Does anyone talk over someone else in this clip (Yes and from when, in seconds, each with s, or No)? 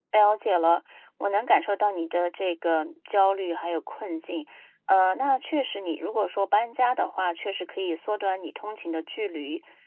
No